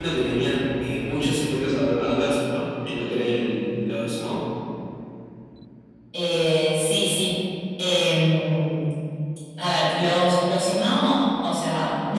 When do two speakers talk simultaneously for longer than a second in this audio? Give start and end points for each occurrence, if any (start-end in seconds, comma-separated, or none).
none